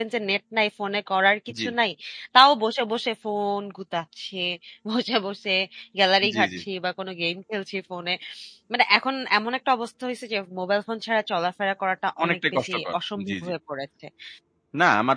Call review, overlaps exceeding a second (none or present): present